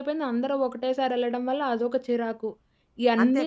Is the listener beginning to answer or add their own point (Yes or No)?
No